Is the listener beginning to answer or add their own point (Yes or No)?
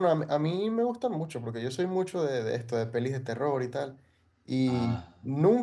No